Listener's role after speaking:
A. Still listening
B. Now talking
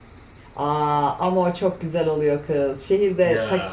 A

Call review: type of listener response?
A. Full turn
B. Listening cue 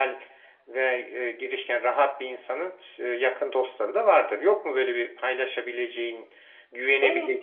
A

